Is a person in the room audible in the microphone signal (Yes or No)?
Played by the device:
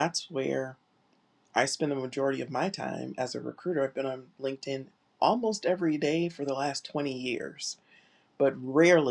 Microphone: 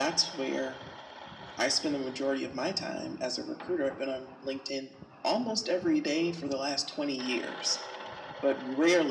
No